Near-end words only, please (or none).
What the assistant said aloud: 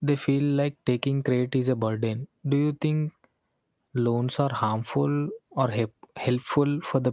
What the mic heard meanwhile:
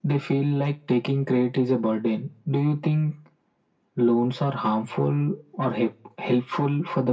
none